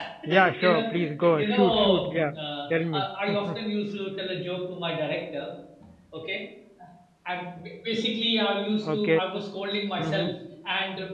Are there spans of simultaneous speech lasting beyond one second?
Yes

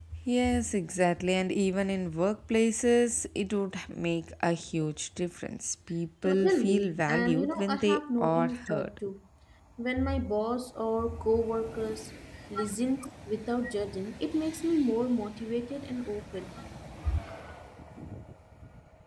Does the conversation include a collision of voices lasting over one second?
Yes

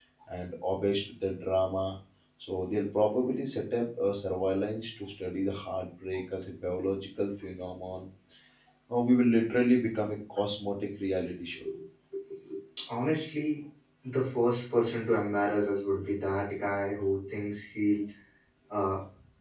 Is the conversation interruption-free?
Yes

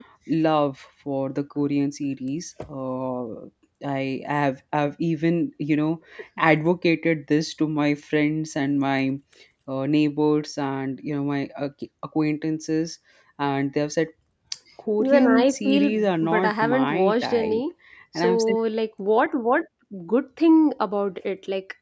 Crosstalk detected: Yes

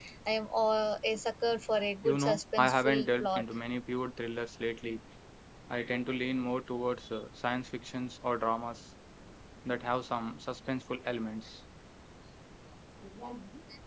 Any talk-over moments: Yes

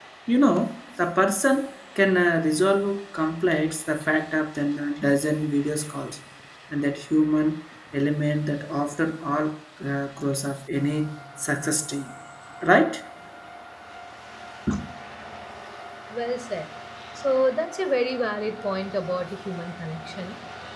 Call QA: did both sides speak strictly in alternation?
Yes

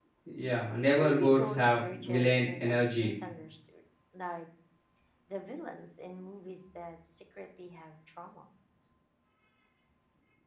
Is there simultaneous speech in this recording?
Yes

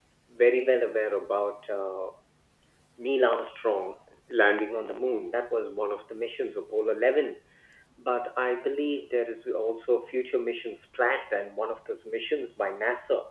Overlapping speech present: No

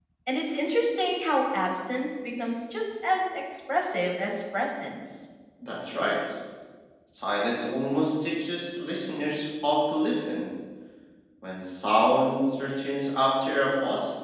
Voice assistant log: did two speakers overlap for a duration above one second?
No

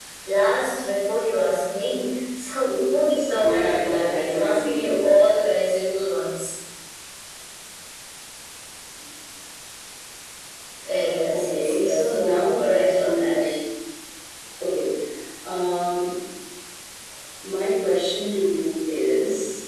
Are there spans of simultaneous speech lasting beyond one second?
Yes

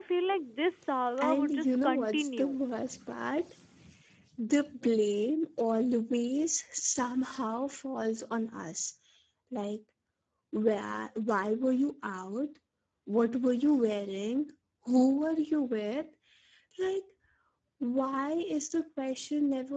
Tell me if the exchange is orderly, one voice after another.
No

